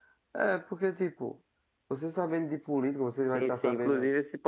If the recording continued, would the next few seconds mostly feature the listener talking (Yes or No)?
Yes